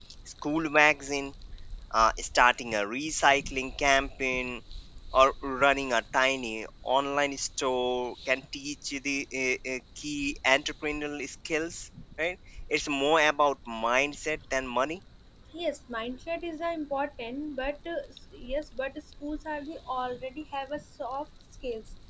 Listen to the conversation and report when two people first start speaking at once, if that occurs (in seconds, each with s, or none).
none